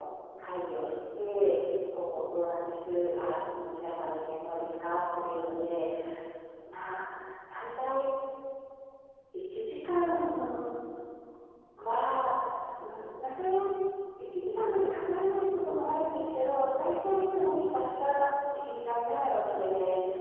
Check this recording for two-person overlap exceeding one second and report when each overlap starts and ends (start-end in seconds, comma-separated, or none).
none